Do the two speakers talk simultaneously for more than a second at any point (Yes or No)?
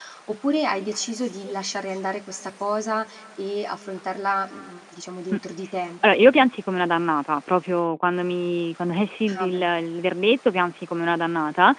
No